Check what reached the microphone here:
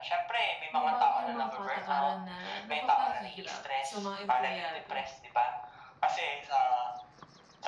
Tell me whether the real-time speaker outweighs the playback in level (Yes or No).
No